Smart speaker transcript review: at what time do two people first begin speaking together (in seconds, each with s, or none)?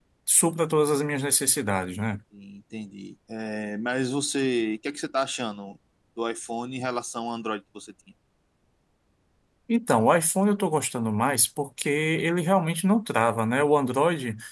none